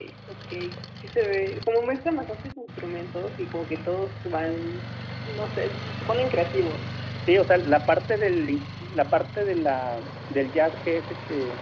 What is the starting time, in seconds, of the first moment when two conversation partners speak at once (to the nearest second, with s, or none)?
none